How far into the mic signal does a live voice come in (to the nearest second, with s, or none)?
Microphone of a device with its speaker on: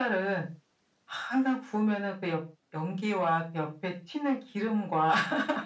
none